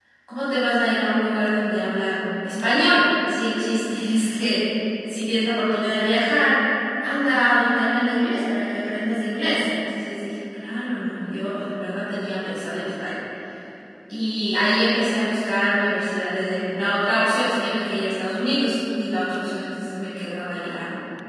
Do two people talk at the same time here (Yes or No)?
No